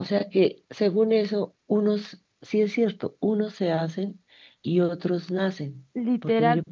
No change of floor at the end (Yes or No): No